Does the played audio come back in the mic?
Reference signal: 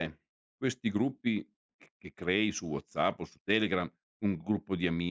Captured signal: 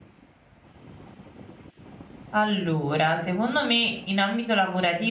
No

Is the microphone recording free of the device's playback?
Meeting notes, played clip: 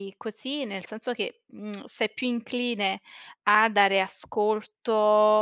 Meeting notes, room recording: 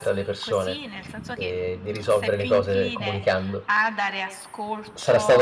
No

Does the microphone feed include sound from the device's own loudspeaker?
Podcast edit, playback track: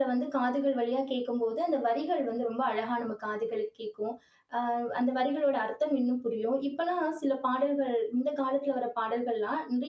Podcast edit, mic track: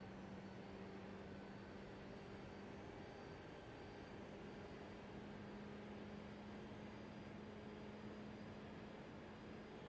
No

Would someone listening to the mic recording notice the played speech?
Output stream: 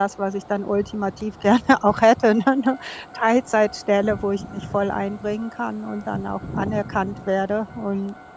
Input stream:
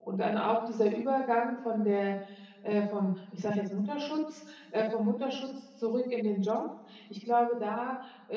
No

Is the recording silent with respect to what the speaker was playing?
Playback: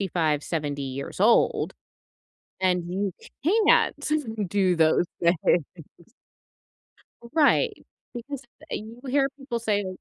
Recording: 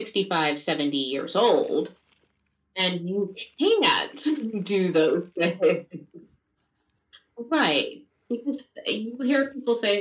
No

